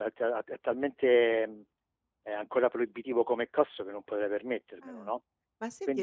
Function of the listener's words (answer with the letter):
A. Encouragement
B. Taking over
B